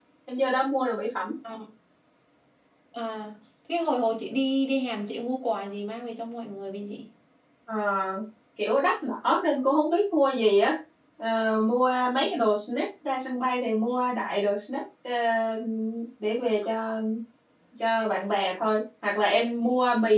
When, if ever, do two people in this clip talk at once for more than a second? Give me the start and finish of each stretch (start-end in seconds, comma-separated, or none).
none